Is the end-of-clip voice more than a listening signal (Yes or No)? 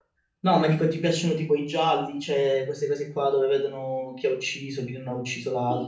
Yes